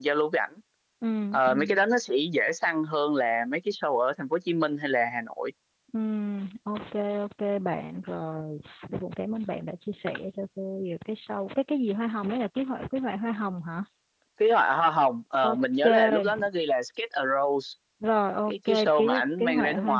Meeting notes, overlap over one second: present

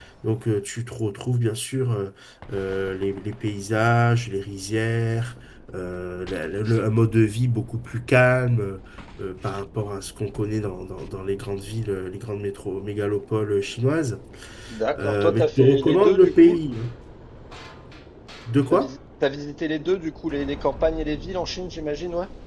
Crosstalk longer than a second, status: present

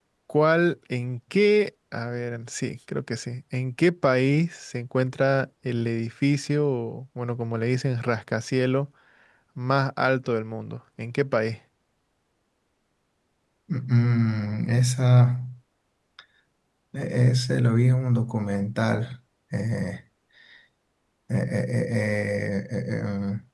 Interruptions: none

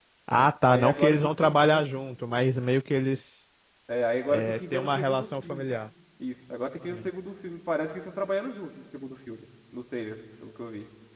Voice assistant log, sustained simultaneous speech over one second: present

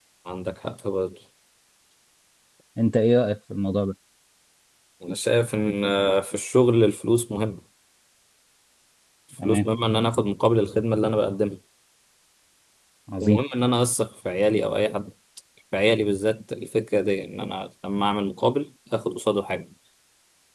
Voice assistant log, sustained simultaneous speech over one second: none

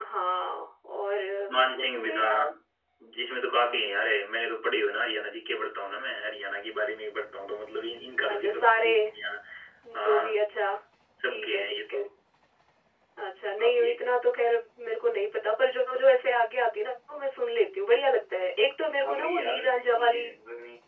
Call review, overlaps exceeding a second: present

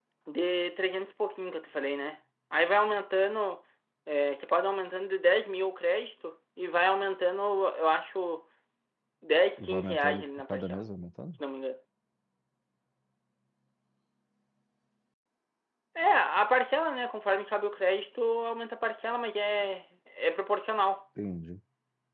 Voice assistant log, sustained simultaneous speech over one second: present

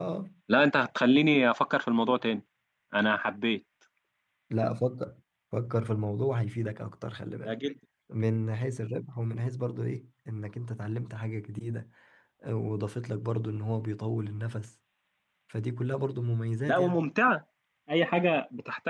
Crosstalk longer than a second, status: none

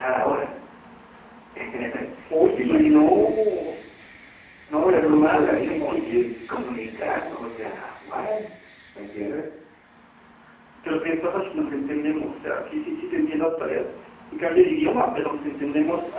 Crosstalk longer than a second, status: present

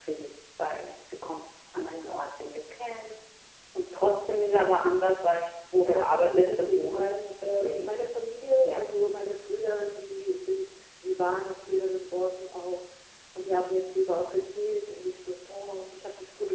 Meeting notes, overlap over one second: present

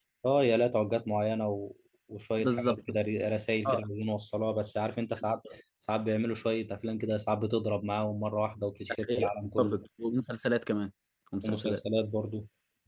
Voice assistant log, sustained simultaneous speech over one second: none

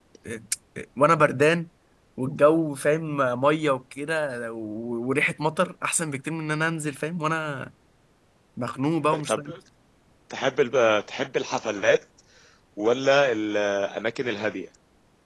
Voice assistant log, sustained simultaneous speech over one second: none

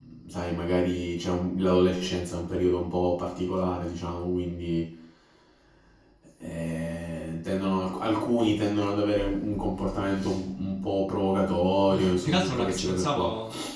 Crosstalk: present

